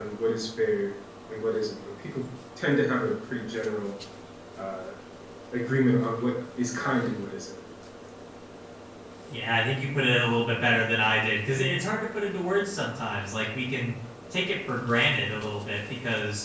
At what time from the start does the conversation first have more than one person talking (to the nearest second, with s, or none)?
none